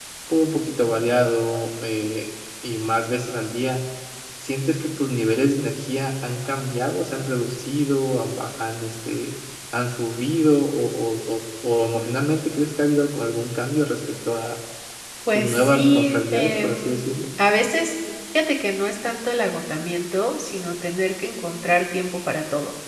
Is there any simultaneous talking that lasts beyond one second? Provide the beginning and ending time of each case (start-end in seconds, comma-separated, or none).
15.3-17.0